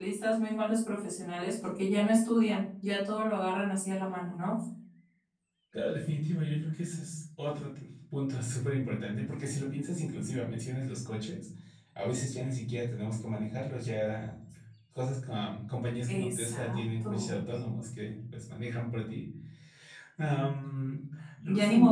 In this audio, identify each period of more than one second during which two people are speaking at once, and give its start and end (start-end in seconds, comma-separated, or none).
16.1-17.4